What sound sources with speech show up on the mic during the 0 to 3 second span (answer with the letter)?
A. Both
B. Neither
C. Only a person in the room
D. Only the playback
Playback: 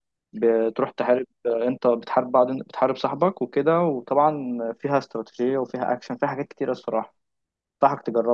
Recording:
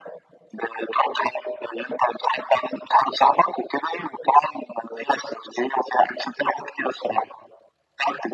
D